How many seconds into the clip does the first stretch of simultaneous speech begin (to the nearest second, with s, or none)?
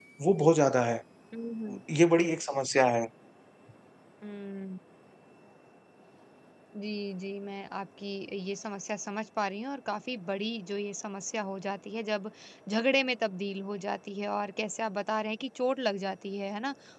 none